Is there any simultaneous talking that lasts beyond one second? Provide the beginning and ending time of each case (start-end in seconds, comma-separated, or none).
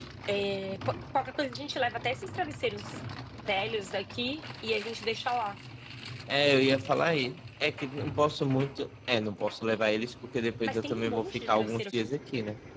10.6-12.1